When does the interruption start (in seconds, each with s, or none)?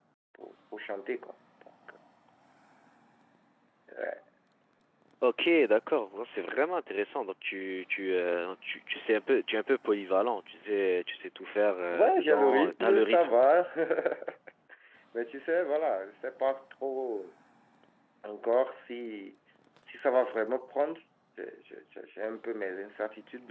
11.9 s